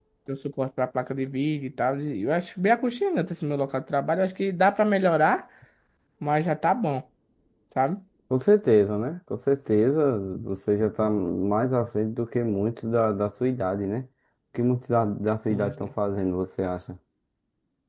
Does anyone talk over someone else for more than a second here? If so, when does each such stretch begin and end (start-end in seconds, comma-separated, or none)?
none